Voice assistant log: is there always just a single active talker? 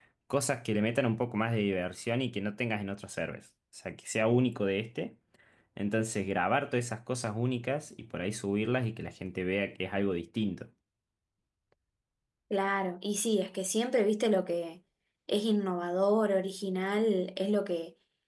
Yes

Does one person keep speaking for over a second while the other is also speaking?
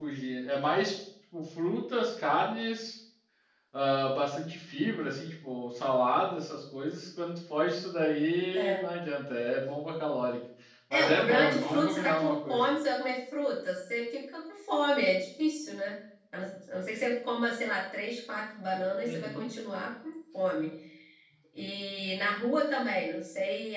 Yes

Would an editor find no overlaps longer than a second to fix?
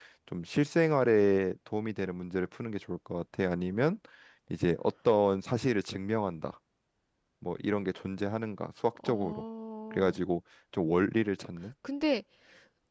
Yes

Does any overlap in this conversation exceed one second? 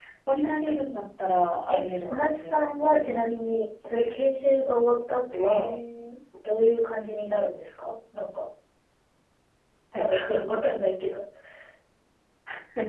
Yes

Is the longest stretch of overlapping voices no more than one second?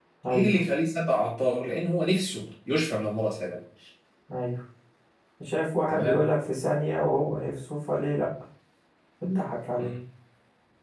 Yes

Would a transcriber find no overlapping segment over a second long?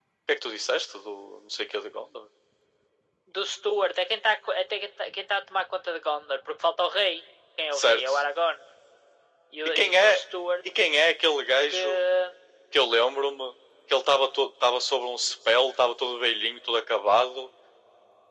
Yes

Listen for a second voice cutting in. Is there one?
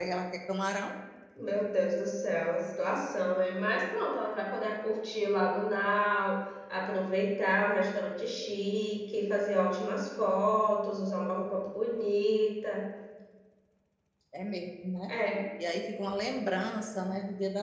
No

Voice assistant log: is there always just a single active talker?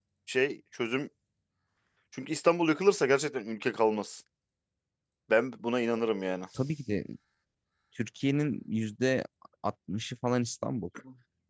Yes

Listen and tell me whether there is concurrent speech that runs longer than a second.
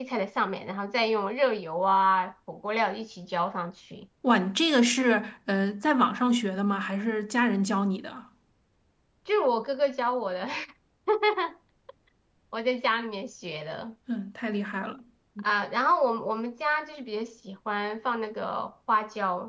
No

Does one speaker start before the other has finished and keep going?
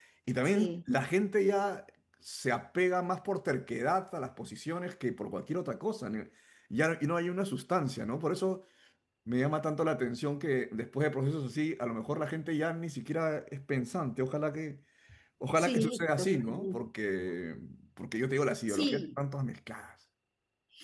Yes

